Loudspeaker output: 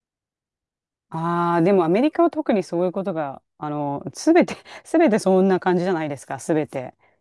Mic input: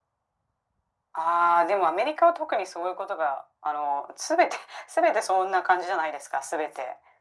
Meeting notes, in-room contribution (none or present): none